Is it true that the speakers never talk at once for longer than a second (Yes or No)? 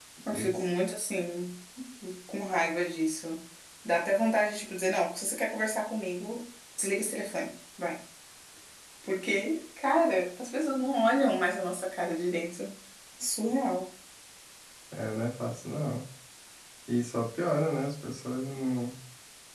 Yes